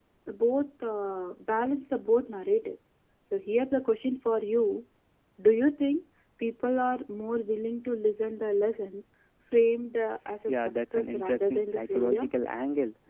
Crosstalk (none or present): present